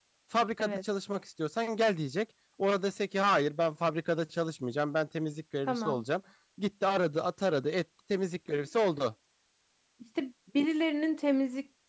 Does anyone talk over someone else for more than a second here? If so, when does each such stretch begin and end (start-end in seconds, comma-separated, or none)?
none